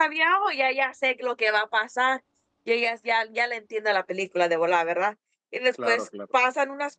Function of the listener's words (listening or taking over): listening